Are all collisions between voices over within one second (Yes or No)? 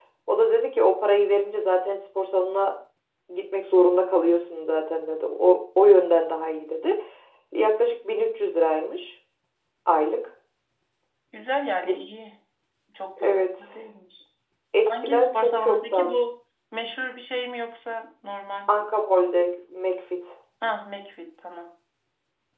No